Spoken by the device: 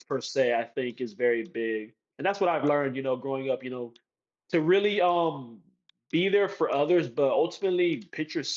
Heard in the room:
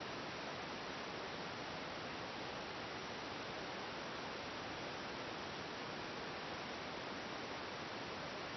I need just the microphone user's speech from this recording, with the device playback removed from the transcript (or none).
none